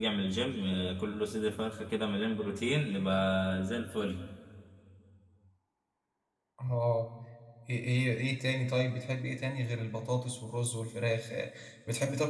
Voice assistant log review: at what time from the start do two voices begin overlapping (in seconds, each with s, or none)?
none